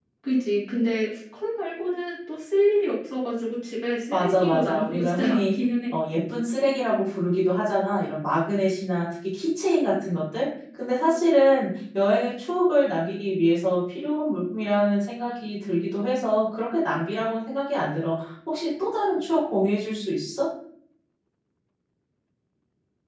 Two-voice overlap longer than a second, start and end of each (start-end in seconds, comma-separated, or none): 4.1-5.5